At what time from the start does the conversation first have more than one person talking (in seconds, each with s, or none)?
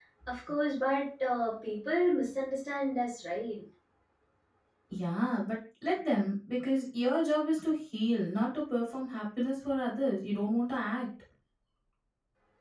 none